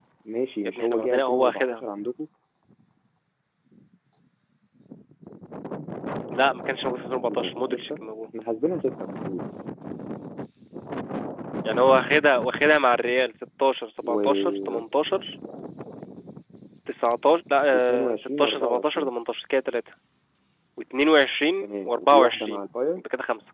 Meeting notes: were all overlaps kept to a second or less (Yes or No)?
No